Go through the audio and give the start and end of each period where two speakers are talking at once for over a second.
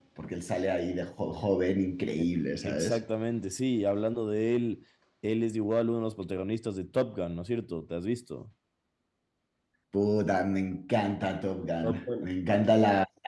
none

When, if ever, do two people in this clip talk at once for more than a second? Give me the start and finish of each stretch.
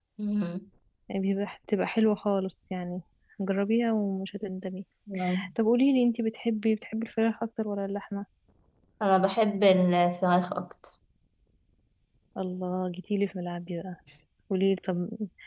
none

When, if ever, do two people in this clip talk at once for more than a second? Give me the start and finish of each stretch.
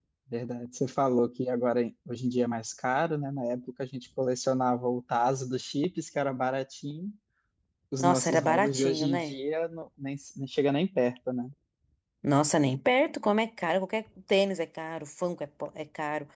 8.0-9.4

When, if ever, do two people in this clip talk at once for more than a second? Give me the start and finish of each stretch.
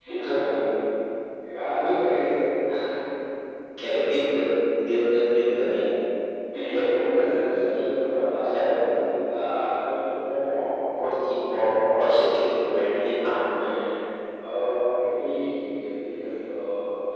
none

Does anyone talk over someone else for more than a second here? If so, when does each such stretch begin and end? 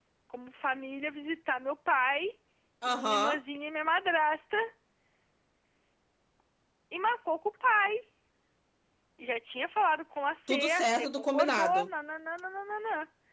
10.5-11.9

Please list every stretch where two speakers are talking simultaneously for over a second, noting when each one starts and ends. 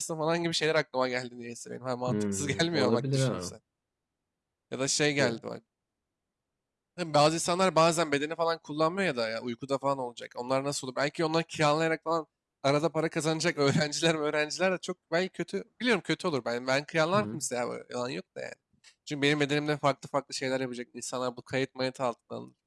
2.1-3.5

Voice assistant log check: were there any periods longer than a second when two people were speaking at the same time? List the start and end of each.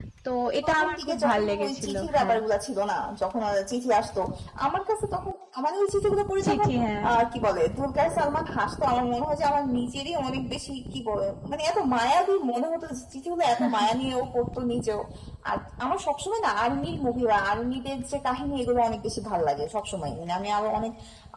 0.6-2.4

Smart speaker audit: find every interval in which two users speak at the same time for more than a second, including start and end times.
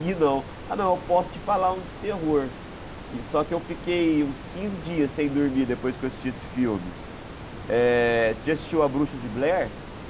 none

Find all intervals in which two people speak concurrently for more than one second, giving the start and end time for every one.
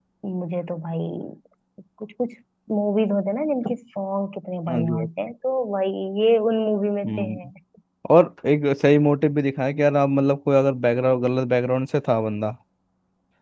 none

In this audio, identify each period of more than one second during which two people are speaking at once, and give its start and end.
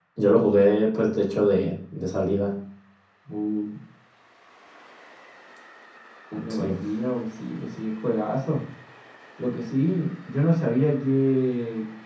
none

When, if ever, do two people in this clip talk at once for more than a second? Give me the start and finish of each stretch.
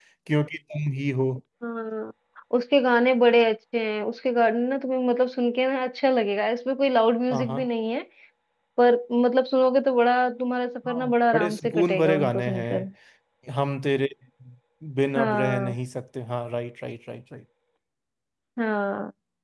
10.9-12.8

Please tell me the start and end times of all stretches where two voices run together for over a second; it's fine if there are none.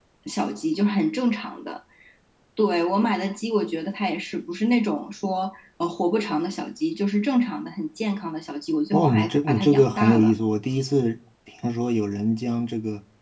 8.9-10.3

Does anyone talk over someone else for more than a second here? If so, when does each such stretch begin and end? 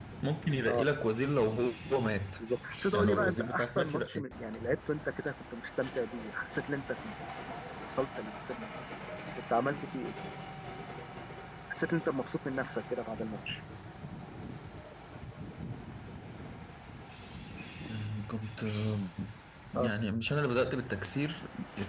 2.9-4.2

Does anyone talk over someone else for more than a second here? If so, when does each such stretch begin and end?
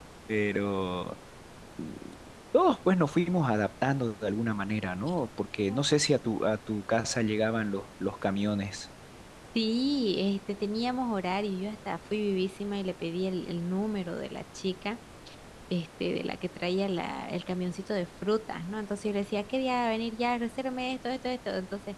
none

